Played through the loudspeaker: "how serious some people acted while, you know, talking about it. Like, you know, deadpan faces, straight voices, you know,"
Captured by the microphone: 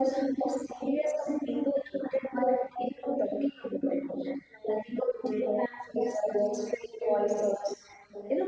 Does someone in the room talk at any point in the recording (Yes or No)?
No